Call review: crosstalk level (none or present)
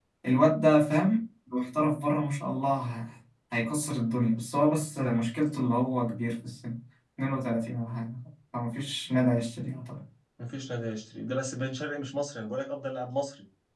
none